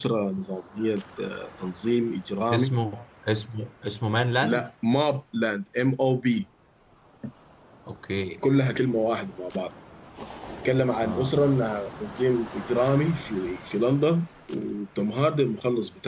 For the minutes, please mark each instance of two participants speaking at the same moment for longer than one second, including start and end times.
none

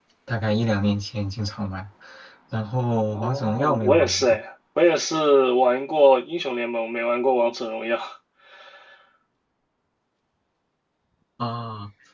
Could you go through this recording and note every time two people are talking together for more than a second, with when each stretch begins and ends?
3.1-4.4

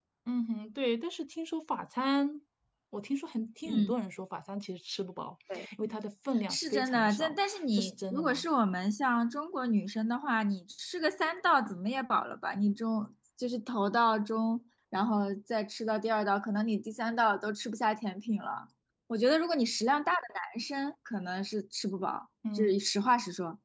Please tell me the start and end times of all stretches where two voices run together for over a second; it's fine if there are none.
6.5-8.4

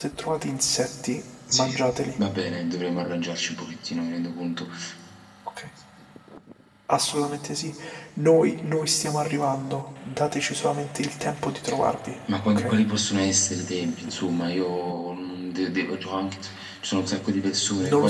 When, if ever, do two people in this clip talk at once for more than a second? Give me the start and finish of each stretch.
none

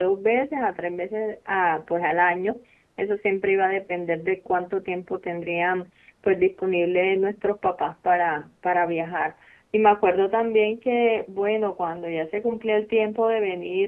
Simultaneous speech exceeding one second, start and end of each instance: none

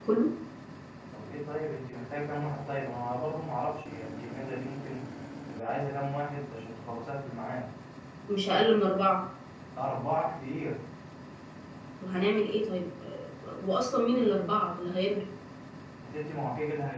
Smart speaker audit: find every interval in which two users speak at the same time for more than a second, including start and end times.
none

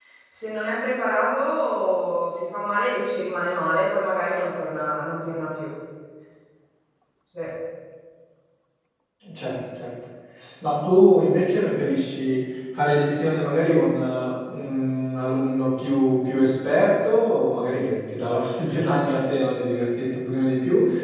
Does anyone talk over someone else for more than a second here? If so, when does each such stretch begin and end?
none

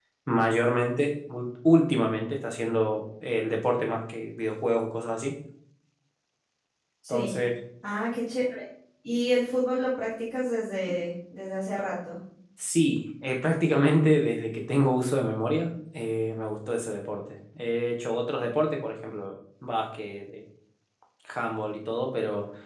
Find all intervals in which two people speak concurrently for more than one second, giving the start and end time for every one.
none

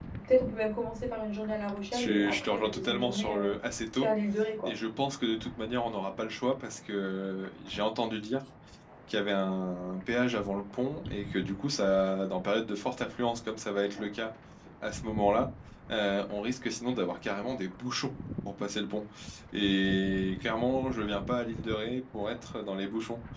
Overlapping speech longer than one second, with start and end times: 1.9-3.5

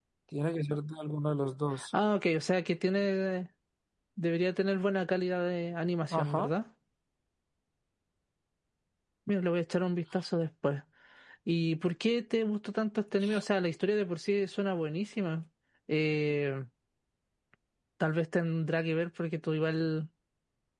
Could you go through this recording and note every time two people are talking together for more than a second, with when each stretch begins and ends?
none

